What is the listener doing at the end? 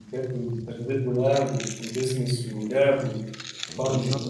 taking over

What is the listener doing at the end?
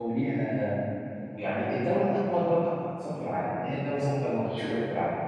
listening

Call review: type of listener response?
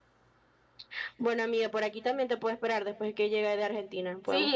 taking over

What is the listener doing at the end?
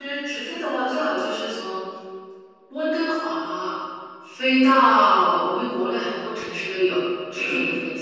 taking over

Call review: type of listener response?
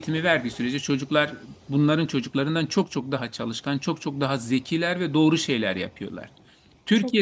listening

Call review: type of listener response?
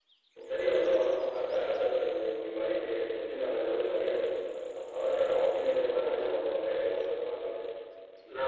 taking over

